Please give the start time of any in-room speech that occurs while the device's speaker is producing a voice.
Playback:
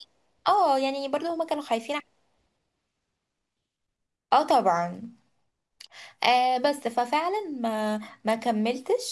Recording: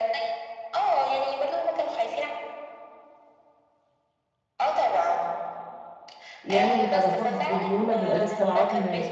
6.4 s

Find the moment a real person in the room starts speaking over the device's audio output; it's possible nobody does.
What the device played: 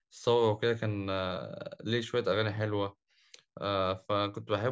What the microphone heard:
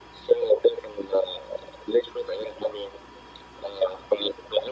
none

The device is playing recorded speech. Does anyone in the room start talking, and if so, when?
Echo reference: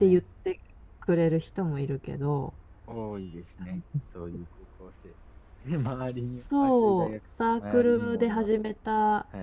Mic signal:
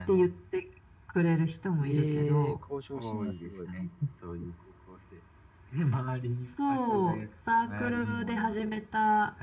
1.8 s

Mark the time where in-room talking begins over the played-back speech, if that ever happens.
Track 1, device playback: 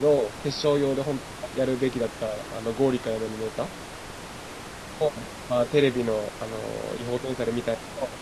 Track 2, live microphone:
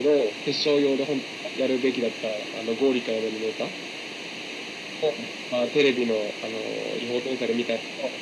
none

